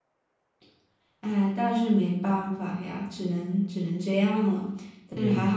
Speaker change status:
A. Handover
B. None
A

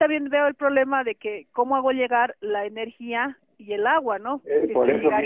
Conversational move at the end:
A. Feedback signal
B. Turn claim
B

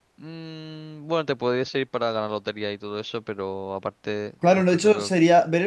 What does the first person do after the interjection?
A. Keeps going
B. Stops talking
B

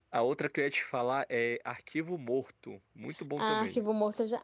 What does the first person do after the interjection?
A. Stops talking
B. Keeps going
A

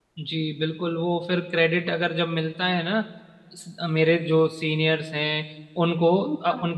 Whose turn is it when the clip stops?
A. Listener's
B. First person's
B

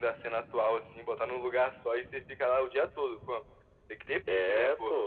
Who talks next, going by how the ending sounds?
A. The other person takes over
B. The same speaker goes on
B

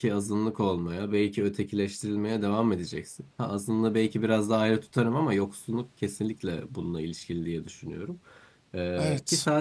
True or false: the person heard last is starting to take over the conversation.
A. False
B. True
A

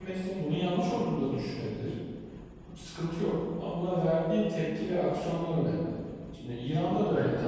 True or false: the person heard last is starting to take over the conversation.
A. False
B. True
A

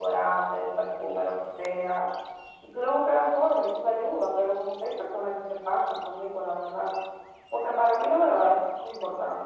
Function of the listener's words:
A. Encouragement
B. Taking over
A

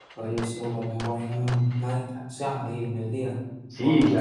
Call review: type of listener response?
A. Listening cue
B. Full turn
B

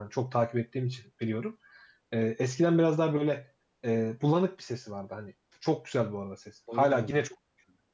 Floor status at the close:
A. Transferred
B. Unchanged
B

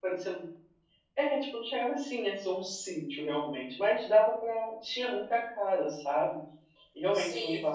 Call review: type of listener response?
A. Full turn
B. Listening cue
B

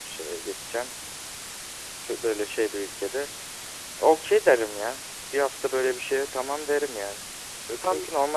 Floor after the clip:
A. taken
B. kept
B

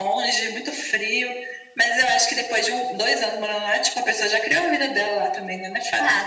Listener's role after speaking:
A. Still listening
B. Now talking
B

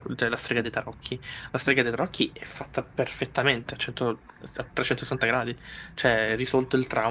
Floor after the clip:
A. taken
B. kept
B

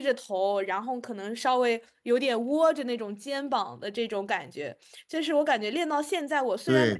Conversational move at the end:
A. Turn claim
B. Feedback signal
A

